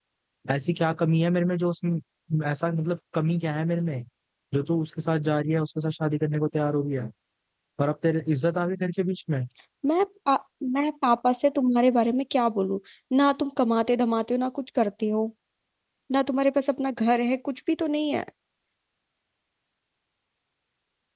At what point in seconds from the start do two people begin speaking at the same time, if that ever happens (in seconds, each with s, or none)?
none